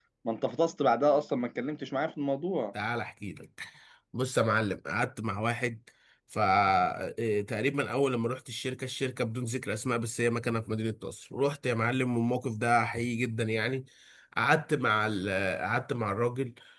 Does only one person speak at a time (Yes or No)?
Yes